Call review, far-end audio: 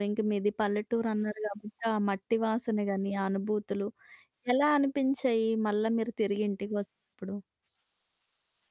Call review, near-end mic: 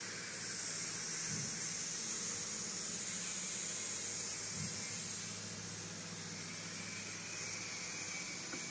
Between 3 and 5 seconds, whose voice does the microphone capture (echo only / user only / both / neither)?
neither